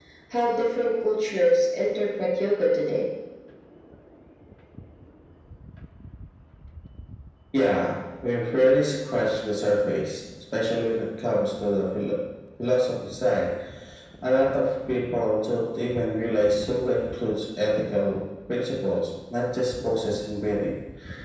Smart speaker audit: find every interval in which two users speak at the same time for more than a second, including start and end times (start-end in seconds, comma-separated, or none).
none